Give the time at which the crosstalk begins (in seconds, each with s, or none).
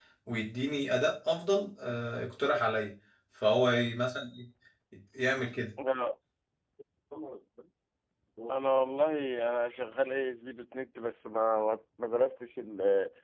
none